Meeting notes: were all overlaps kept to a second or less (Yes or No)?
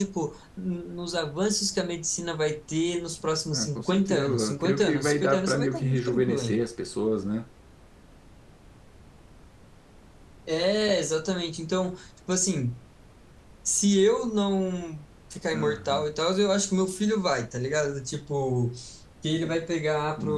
No